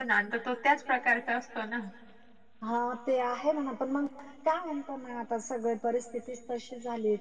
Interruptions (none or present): none